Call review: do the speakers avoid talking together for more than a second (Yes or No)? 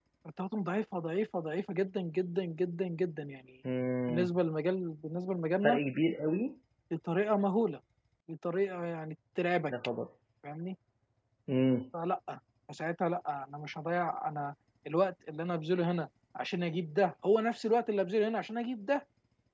Yes